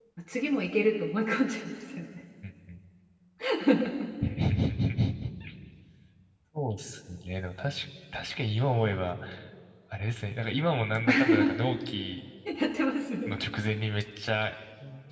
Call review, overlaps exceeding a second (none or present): none